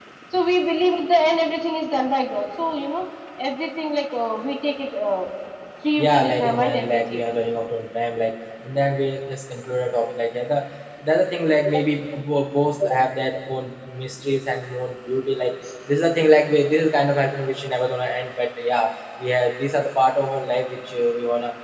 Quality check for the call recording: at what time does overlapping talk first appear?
6.0 s

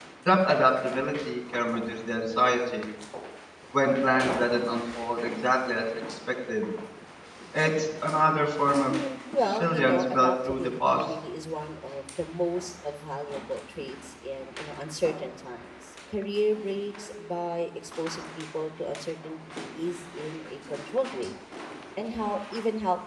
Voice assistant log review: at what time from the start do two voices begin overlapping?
9.5 s

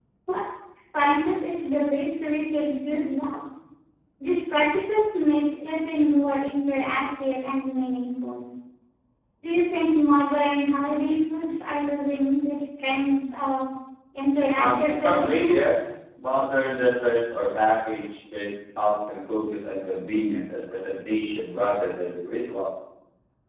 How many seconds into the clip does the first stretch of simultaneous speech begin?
14.6 s

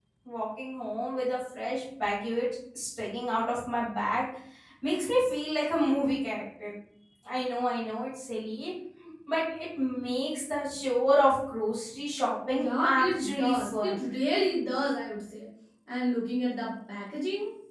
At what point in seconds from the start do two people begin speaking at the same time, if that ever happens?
12.5 s

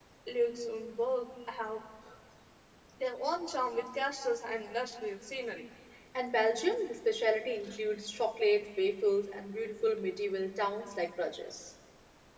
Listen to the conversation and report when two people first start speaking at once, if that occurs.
none

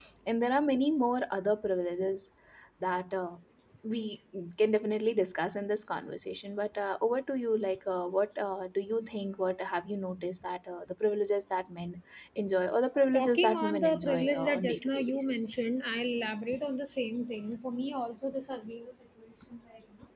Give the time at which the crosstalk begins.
13.0 s

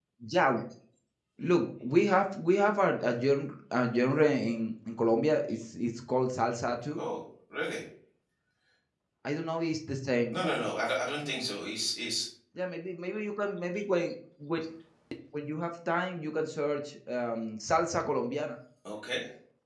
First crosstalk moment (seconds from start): none

